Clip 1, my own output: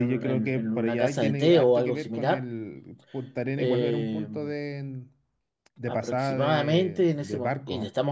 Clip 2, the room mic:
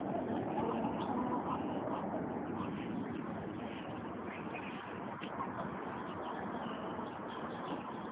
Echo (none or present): none